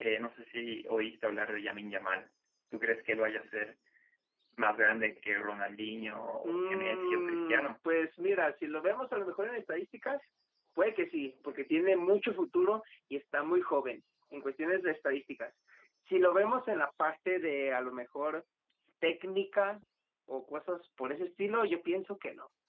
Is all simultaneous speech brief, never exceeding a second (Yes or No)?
No